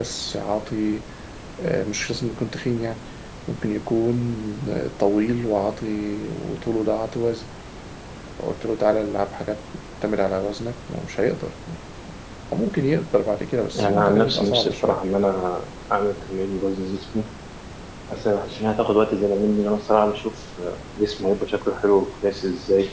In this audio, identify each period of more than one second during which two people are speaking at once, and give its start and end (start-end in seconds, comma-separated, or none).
13.7-15.0